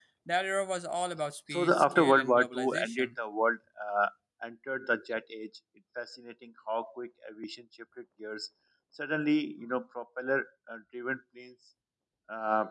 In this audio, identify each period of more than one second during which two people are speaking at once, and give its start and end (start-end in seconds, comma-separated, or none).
1.5-3.1